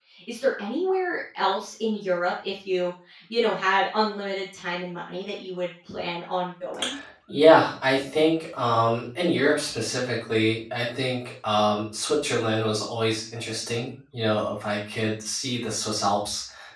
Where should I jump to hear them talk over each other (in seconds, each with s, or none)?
none